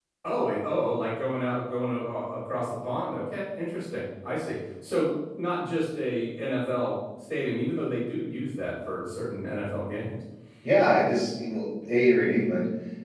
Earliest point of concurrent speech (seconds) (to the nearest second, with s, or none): none